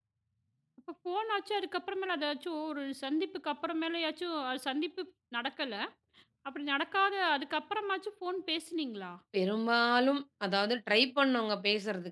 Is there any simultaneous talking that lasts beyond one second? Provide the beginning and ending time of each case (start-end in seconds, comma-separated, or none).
none